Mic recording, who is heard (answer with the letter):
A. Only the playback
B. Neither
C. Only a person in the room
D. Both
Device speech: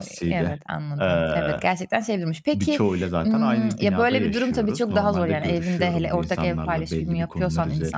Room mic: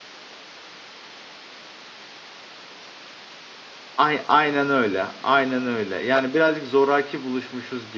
C